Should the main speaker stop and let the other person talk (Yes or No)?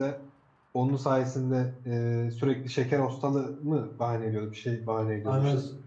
Yes